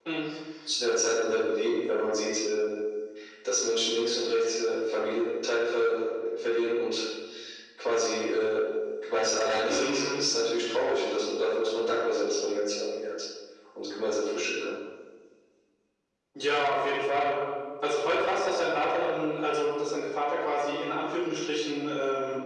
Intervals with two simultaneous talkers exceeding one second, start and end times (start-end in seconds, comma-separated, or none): none